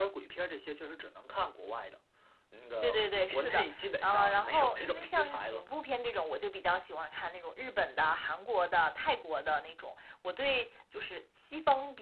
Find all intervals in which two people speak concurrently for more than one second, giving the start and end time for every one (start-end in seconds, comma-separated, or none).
2.8-5.6